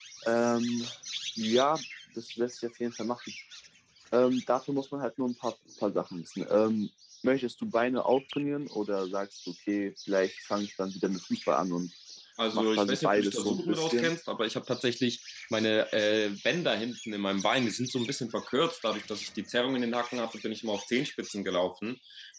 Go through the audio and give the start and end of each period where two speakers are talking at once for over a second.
12.5-14.1

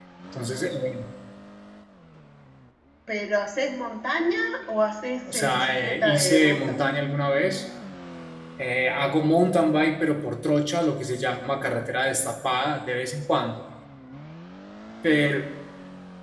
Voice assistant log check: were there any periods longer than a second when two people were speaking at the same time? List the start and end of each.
5.3-6.8

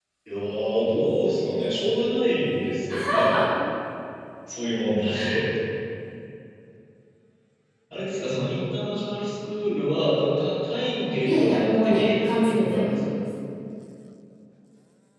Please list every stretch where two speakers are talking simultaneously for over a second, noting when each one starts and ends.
11.2-13.0

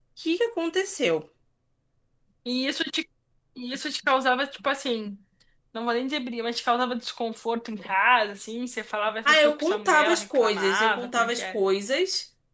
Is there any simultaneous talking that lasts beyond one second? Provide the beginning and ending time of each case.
9.2-11.6

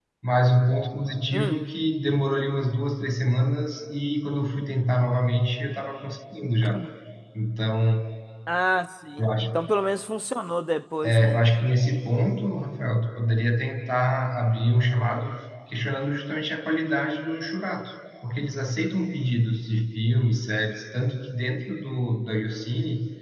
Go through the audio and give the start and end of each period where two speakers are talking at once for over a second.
none

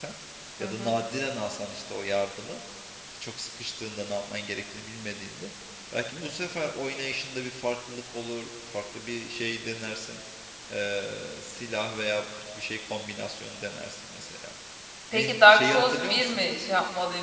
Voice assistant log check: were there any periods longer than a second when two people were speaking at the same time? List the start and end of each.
15.1-16.4

